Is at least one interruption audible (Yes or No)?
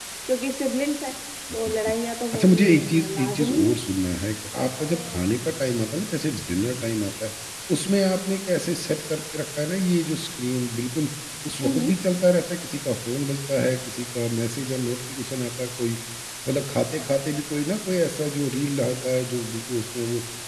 Yes